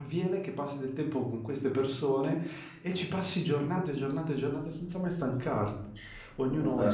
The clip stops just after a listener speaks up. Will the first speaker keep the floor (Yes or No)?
Yes